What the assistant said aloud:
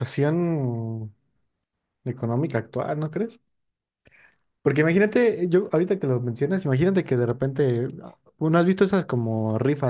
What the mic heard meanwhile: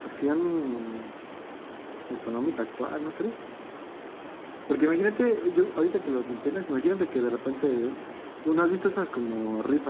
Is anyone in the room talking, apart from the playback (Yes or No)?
No